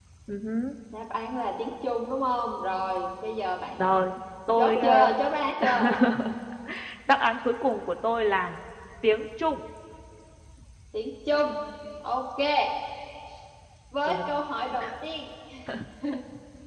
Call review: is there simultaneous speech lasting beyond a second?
No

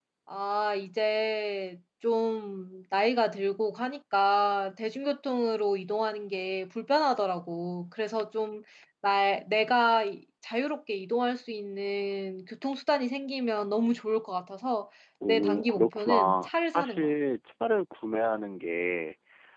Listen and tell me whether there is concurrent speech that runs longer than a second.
Yes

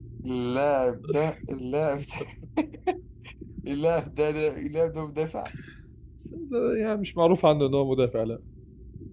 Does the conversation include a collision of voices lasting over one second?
No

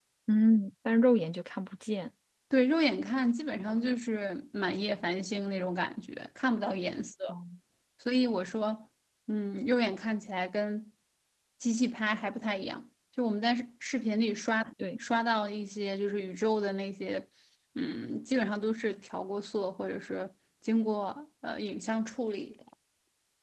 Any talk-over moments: No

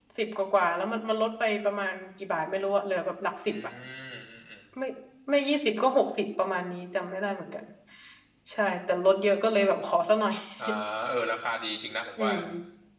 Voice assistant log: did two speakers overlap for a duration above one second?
No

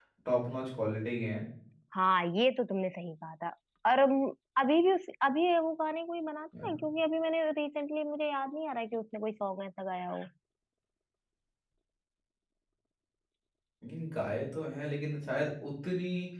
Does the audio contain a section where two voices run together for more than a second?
No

